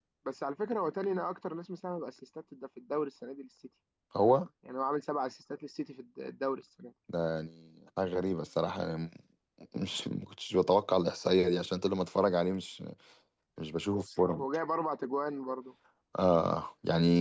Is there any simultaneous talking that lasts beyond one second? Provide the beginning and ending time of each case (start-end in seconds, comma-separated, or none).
none